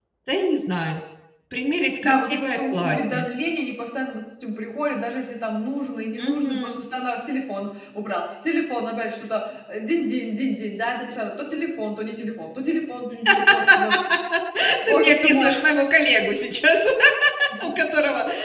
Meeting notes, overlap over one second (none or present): present